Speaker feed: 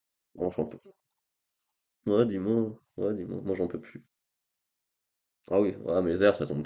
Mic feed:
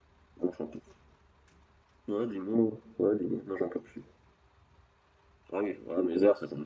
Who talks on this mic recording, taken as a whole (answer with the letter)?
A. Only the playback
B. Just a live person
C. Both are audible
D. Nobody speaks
A